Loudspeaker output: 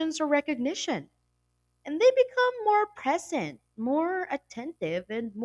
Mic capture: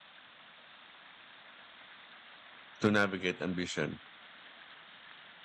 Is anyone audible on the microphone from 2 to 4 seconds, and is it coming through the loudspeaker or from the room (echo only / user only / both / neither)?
user only